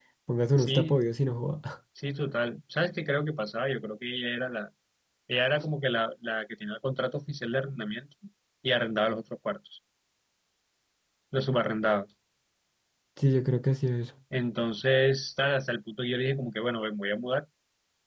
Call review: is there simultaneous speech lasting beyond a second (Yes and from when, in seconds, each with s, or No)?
No